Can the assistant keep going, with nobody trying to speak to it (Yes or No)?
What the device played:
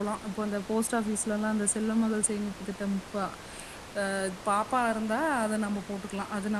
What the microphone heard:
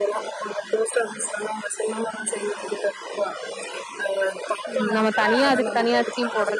No